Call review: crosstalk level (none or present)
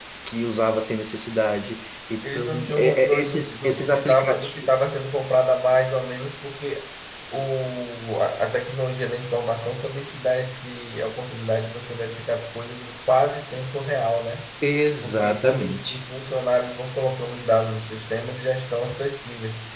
present